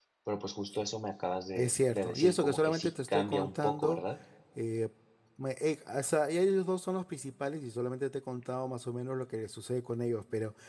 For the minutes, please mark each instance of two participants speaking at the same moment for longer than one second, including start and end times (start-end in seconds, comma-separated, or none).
1.6-4.0